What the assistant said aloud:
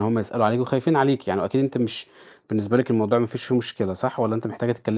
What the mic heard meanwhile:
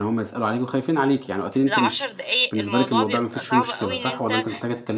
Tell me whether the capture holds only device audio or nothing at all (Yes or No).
No